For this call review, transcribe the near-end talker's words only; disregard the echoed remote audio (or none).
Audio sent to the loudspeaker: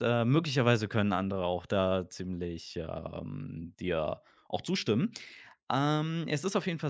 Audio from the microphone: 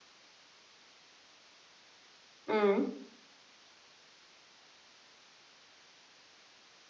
Mhm.